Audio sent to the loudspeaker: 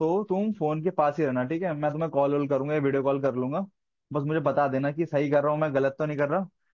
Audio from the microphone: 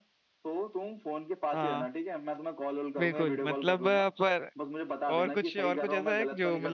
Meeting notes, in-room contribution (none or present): present